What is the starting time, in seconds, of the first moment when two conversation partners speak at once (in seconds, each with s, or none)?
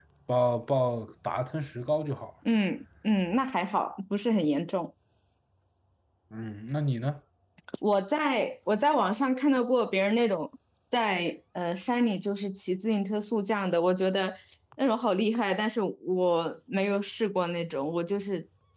none